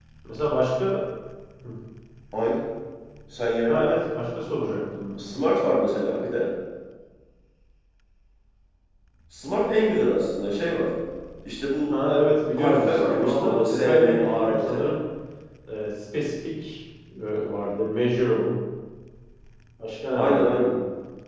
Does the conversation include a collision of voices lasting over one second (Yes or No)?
Yes